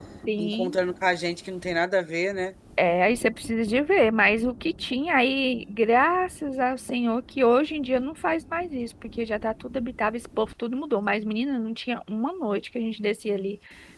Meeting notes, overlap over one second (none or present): none